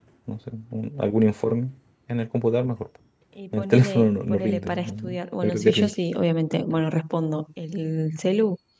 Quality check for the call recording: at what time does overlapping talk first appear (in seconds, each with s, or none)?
3.5 s